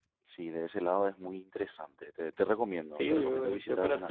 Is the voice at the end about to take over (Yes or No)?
Yes